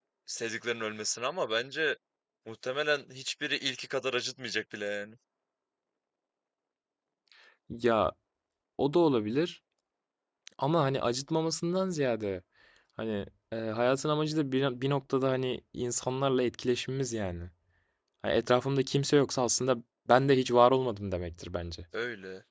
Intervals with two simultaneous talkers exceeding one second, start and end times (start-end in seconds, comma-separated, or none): none